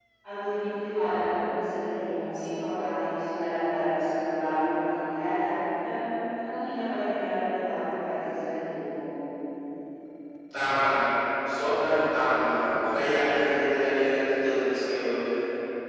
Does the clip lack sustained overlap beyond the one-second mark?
Yes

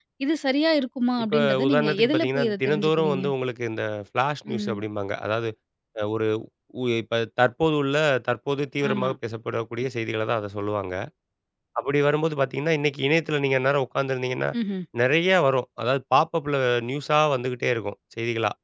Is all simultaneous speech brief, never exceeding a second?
No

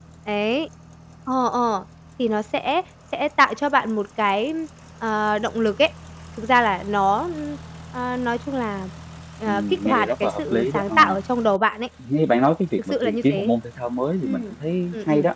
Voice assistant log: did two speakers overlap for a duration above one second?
Yes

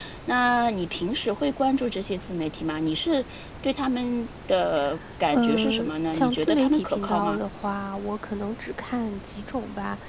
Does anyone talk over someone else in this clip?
Yes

